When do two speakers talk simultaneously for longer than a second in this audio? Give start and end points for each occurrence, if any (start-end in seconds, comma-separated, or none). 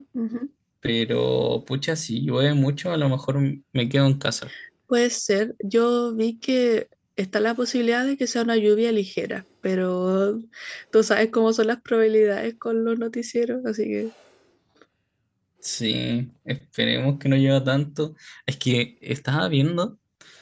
none